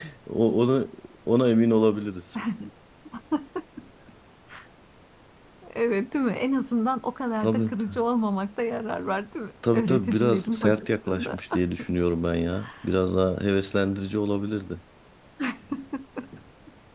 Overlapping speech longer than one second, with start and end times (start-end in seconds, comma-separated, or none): 9.7-11.4